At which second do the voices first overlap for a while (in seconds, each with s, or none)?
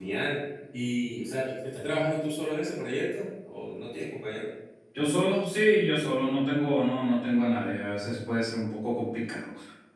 none